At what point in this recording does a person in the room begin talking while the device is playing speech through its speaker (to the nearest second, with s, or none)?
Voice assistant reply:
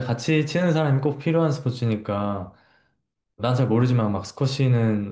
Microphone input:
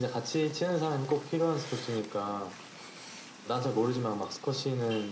none